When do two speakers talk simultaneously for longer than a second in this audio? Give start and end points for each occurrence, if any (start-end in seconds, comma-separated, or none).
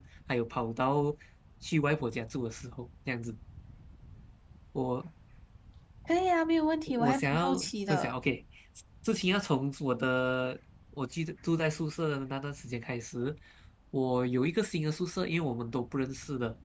6.9-8.2